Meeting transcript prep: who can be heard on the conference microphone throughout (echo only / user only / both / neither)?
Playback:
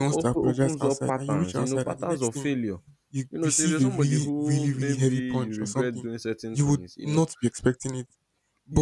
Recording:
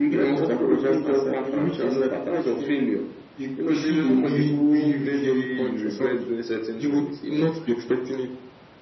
echo only